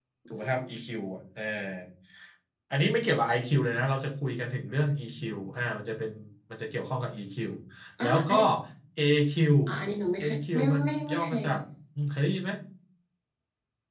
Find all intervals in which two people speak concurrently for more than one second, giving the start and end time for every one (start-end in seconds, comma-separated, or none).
10.2-11.4